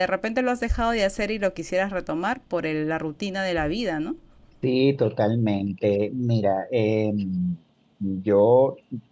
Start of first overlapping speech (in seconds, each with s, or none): none